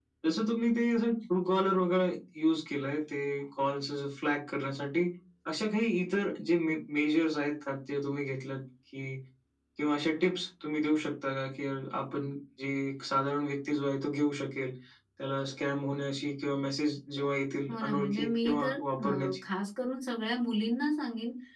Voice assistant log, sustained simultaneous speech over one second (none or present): present